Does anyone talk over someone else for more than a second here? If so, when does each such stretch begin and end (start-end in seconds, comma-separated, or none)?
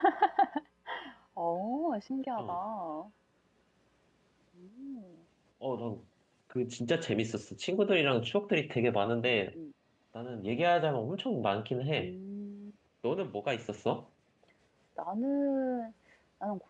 none